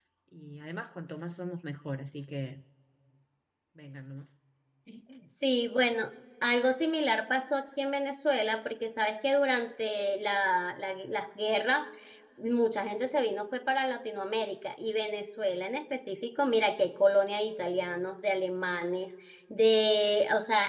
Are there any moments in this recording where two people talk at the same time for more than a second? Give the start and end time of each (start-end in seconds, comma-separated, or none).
none